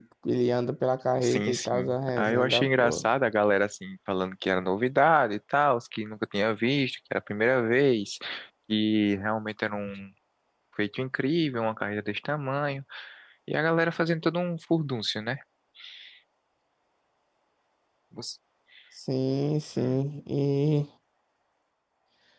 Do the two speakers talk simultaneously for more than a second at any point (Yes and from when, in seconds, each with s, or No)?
Yes, from 1.2 s